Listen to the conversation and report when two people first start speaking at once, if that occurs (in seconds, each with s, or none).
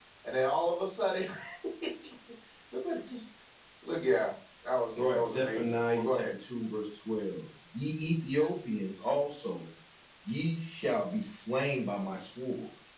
5.0 s